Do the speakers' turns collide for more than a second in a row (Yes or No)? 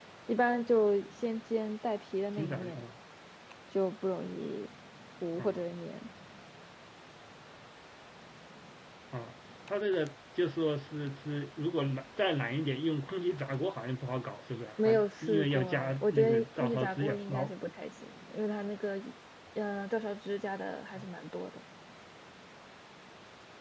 Yes